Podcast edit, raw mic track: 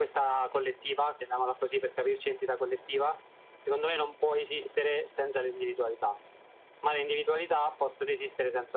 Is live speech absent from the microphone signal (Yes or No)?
Yes